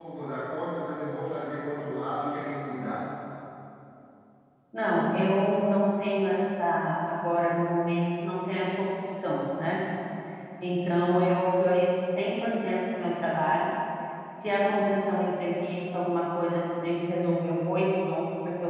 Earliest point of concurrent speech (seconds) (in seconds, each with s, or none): none